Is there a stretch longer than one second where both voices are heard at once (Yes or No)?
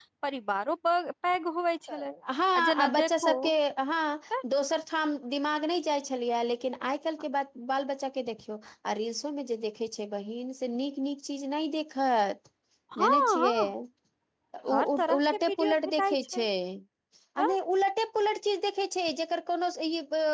Yes